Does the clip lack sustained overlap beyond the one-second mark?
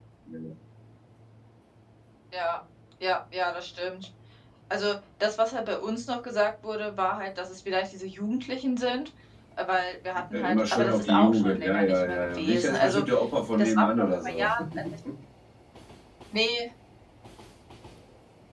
No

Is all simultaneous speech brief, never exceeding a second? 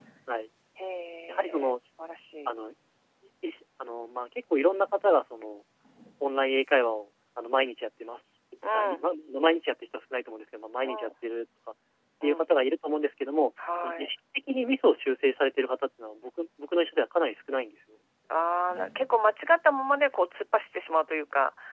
Yes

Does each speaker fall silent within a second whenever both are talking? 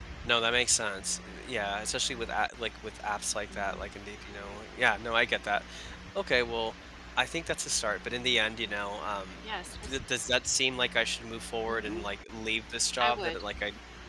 Yes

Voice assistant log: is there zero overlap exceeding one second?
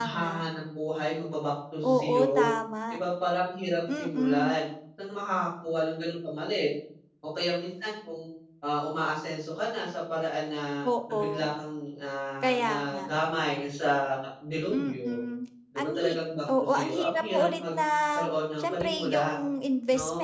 No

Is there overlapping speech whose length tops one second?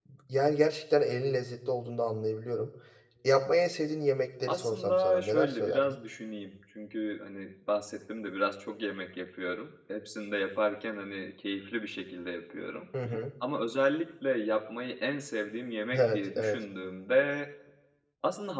Yes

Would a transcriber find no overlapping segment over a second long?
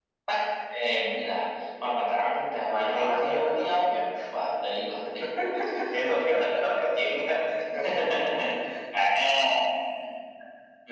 No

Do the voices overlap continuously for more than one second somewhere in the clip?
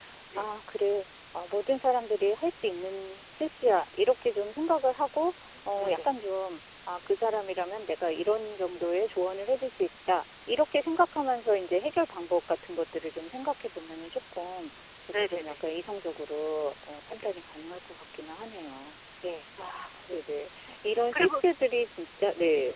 No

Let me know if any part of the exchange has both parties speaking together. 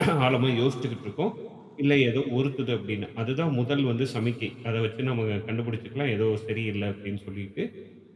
No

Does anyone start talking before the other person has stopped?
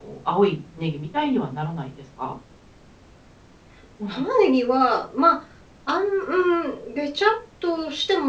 No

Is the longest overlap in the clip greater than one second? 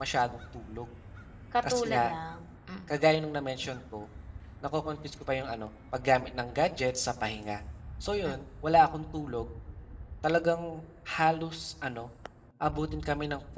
No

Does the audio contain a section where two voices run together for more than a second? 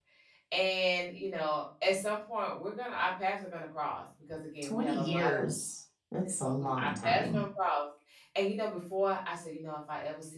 Yes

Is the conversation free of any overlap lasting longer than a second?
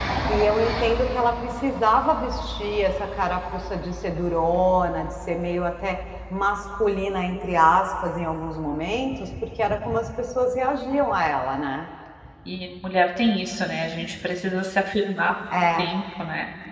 Yes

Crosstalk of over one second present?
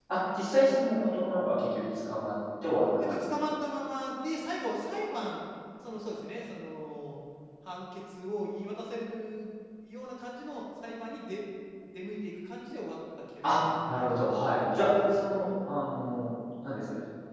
No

